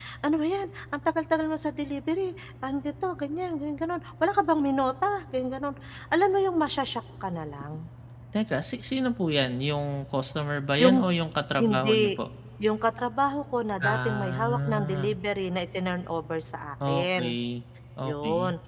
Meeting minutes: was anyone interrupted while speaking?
Yes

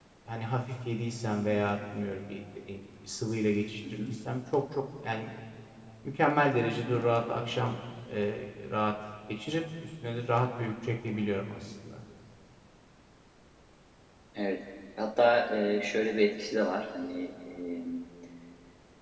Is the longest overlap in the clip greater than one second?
No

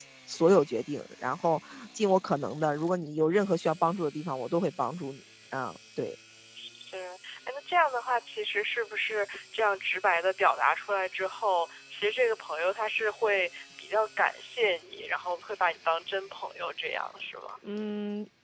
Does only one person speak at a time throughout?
Yes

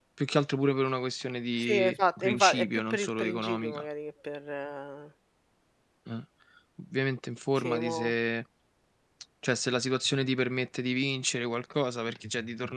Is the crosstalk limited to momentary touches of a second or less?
No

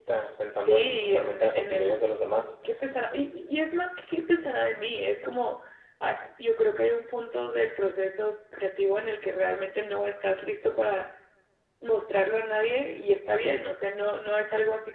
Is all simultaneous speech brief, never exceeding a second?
No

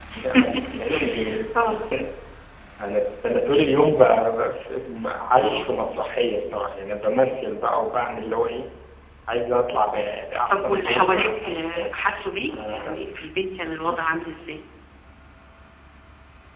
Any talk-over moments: Yes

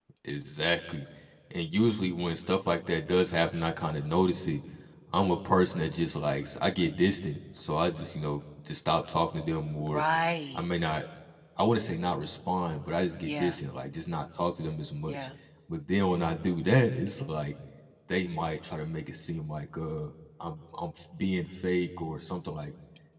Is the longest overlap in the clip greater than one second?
No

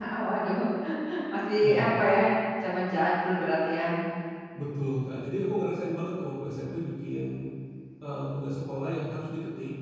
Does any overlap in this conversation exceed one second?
No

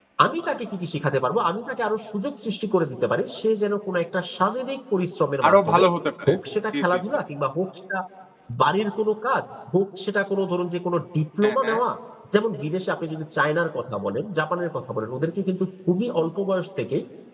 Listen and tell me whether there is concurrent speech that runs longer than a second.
No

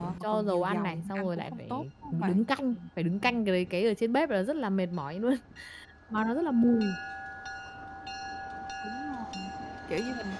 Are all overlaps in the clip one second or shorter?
No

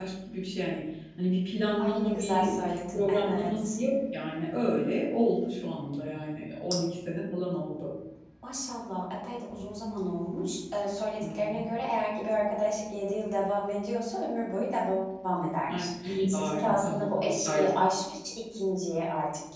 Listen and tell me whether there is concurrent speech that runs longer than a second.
Yes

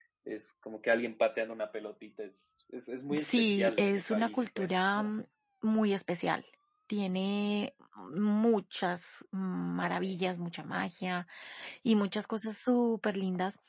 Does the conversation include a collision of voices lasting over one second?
Yes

